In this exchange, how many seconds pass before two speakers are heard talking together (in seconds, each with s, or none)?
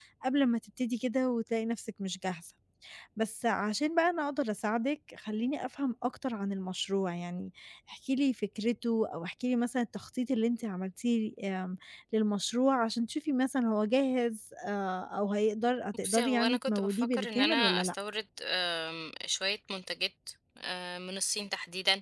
16.0 s